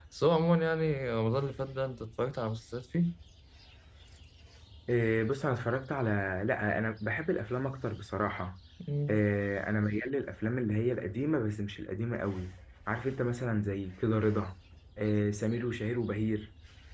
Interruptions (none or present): none